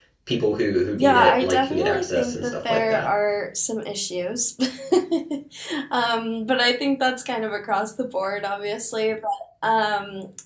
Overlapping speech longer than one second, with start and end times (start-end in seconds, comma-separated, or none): 1.0-3.1